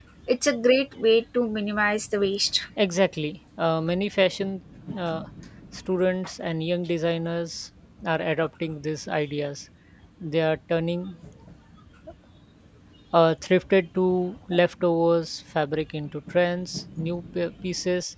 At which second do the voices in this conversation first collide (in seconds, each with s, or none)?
none